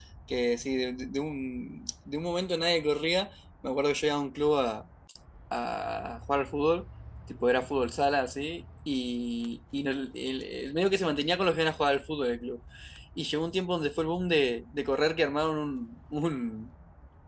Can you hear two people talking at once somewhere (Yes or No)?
No